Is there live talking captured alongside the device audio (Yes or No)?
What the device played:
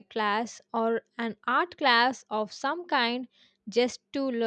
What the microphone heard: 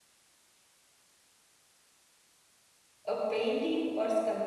Yes